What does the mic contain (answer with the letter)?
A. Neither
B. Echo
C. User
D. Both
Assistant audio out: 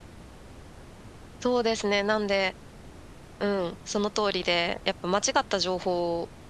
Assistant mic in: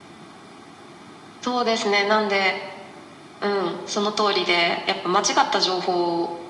B